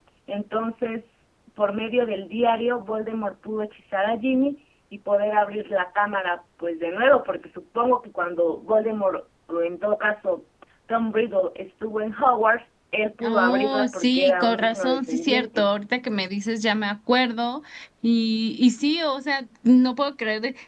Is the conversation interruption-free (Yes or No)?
No